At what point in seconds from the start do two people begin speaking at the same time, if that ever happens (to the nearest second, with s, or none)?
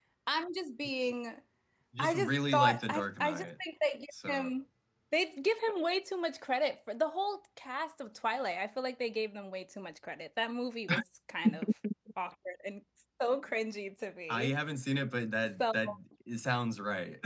2 s